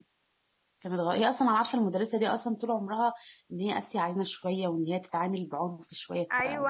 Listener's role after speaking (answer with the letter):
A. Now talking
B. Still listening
A